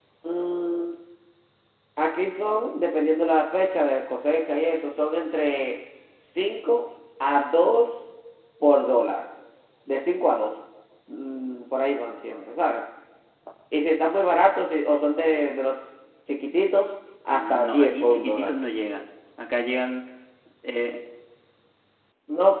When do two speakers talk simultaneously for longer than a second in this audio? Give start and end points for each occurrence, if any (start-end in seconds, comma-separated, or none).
17.3-18.5